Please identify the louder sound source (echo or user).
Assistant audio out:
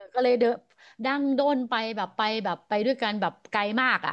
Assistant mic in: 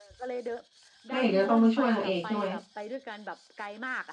user